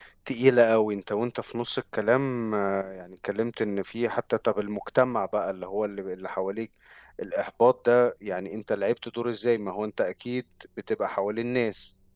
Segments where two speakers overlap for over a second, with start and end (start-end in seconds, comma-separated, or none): none